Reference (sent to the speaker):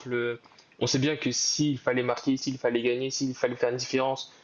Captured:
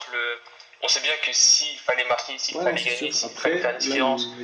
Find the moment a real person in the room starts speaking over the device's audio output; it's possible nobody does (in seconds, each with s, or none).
2.5 s